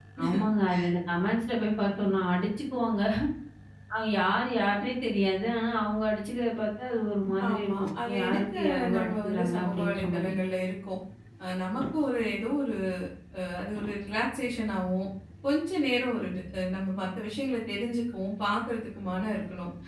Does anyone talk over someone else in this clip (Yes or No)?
Yes